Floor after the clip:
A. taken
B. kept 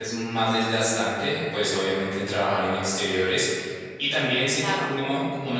B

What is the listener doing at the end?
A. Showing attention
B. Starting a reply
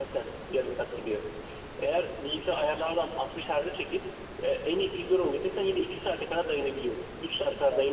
A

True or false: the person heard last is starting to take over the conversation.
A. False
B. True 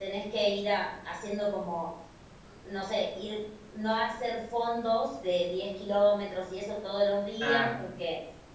A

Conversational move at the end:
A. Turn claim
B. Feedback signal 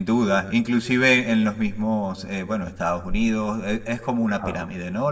B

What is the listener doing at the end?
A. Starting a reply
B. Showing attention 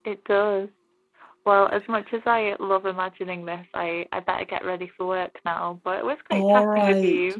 A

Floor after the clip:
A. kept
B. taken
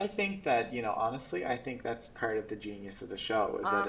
A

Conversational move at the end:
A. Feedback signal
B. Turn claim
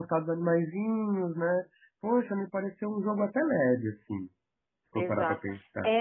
B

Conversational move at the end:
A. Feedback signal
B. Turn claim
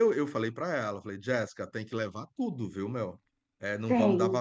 A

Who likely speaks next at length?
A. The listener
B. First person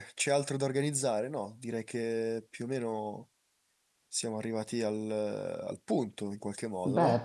A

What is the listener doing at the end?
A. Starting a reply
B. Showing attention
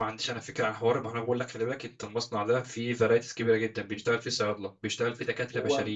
B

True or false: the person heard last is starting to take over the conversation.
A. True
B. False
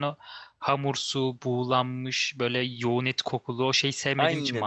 A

